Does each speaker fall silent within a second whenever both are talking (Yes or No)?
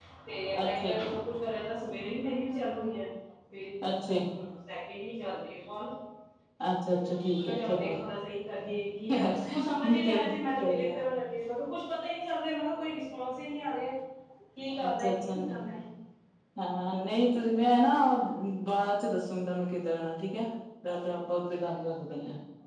No